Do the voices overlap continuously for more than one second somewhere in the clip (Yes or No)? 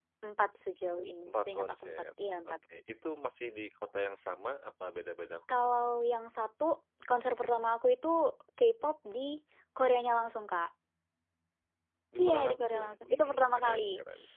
Yes